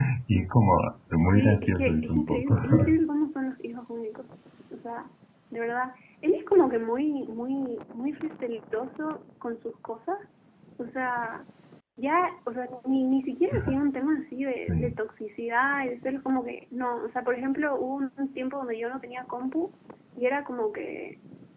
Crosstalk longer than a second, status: present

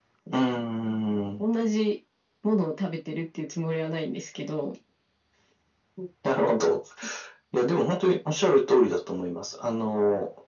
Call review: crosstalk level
none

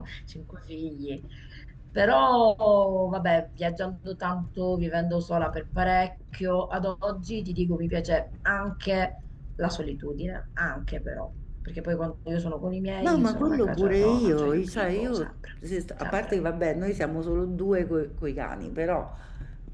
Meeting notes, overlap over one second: present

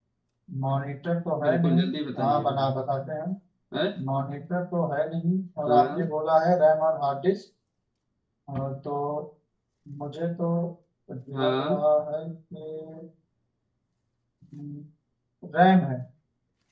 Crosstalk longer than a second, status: none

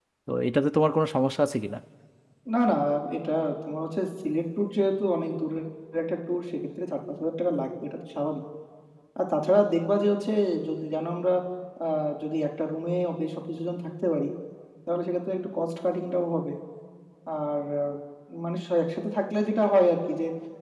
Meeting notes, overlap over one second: none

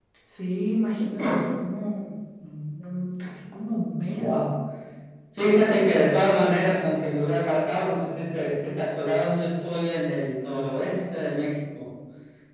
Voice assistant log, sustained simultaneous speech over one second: none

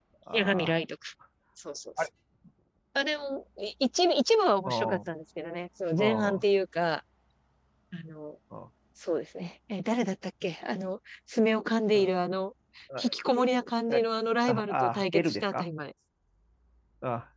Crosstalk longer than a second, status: present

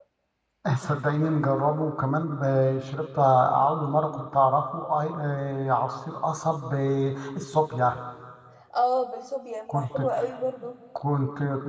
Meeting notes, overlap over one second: none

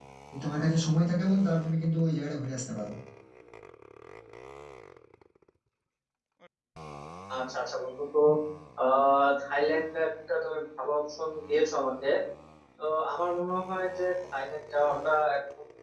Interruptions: none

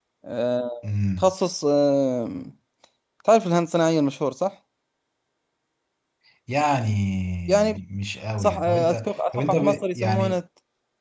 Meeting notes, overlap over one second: present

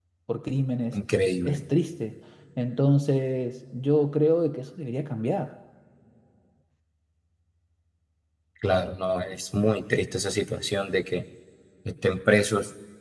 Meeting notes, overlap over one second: none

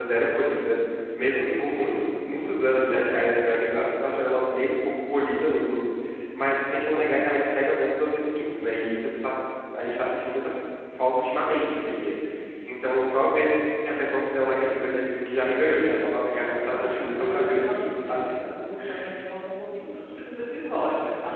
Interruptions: present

